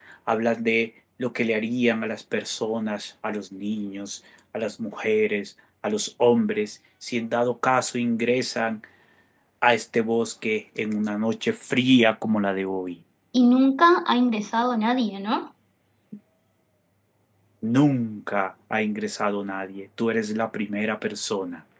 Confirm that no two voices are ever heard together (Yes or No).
Yes